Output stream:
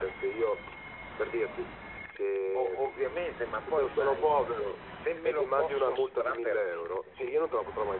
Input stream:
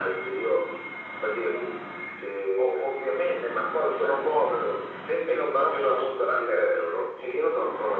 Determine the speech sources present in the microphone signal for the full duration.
echo only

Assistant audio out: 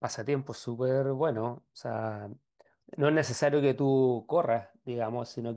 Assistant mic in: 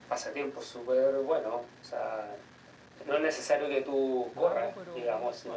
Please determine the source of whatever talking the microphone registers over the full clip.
both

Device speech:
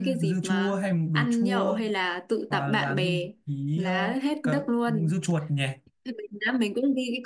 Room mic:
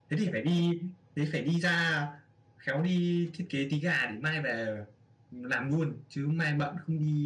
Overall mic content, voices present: user only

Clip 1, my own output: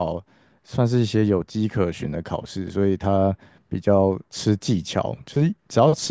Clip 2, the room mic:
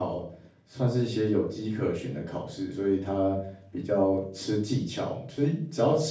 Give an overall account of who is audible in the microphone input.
echo only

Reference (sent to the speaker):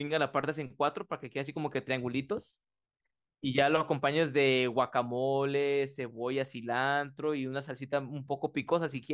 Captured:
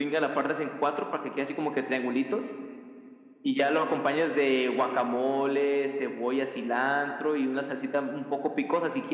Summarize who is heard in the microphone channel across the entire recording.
echo only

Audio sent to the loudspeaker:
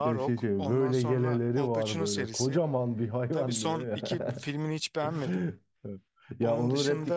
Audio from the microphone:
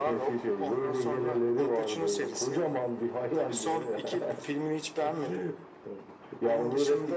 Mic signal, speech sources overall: echo only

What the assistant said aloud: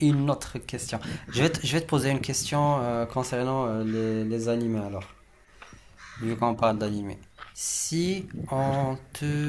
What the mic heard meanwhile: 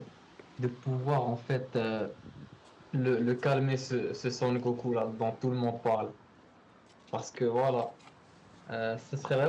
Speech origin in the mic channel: user only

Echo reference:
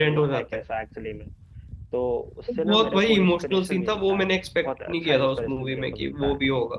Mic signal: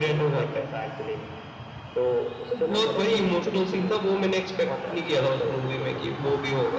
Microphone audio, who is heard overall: echo only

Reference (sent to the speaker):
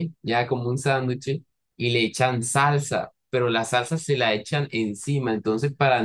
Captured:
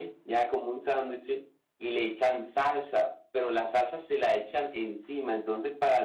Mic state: echo only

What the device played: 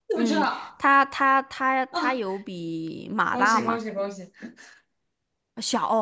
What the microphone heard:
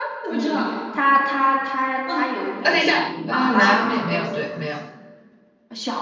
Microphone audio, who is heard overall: both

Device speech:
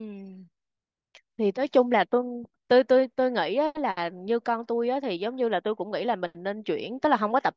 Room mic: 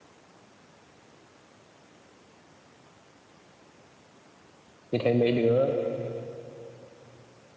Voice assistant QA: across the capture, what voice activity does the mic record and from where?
user only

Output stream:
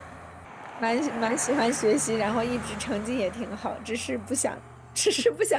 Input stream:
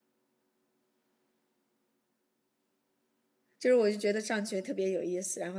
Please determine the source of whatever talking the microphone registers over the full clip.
user only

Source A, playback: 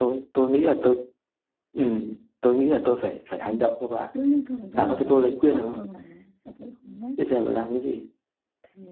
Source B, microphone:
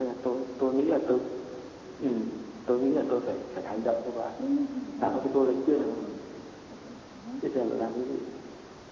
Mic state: echo only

